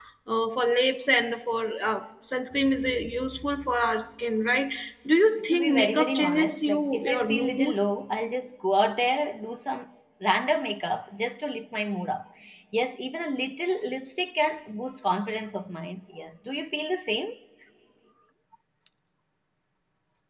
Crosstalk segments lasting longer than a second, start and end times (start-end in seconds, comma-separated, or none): 5.5-7.8